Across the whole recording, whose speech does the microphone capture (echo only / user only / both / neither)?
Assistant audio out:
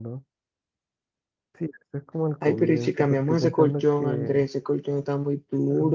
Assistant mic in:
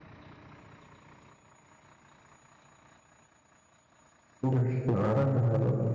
user only